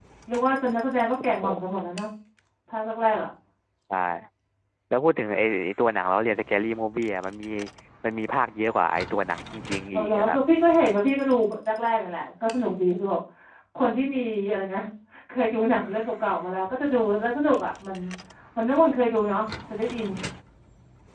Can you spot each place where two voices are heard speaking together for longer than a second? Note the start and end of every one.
none

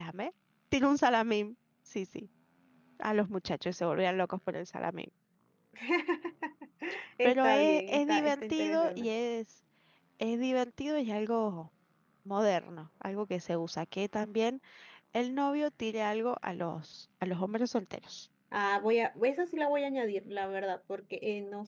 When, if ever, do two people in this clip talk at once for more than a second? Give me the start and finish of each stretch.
7.2-9.1

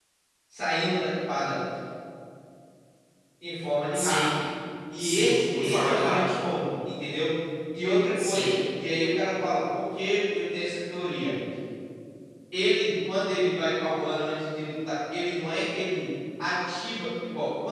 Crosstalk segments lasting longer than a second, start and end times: 5.0-6.3

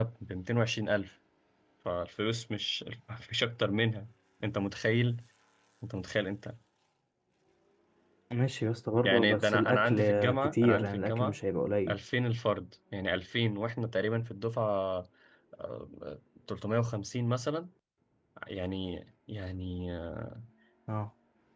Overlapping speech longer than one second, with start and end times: 9.0-11.4

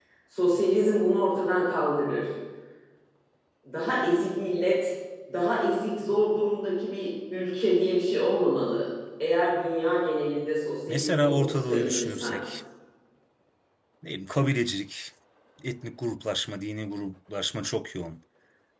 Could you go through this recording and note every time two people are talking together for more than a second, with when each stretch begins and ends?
10.9-12.4

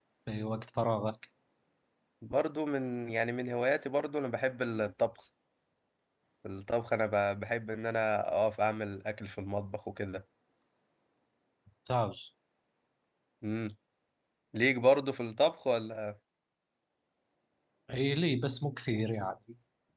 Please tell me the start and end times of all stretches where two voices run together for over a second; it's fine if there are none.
none

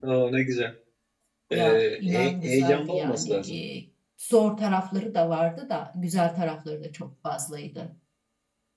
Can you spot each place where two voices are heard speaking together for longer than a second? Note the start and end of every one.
1.5-3.6

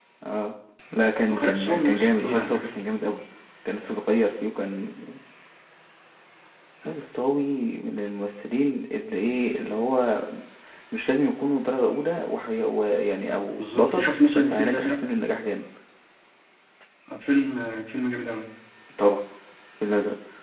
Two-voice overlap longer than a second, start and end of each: 1.3-2.8, 13.6-14.9

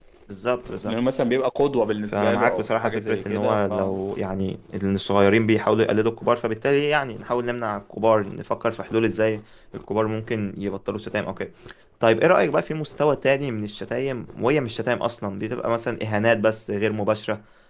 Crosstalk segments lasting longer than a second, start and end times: 2.1-3.7

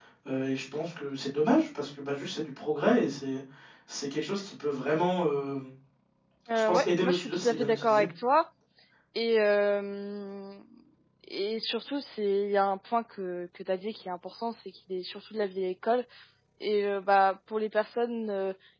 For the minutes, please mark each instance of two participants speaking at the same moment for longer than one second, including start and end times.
6.6-8.0

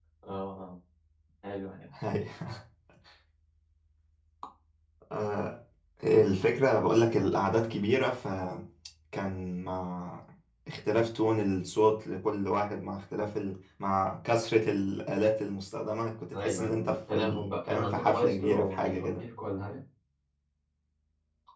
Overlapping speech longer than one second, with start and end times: 16.3-19.2

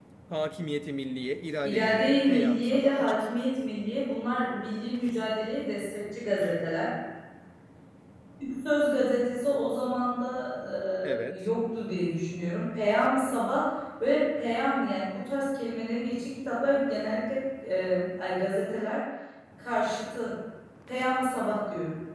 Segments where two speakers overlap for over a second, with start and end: 1.6-3.3

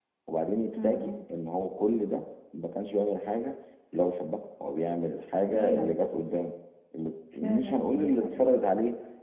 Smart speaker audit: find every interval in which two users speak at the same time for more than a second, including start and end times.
7.4-8.6

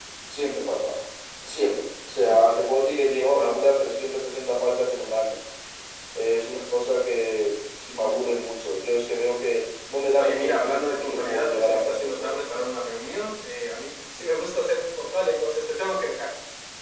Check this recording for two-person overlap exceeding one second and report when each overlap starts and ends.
10.2-12.4

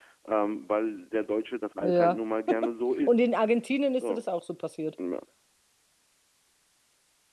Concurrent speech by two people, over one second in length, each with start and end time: none

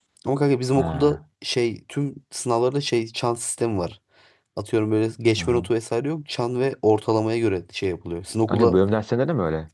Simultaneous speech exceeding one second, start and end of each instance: none

